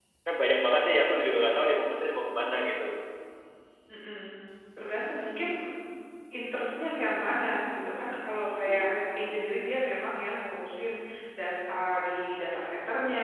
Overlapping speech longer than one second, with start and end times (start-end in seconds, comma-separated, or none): none